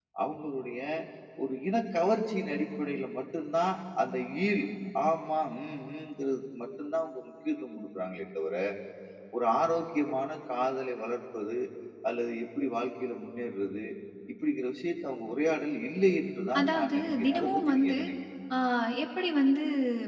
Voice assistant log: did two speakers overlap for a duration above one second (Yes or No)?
Yes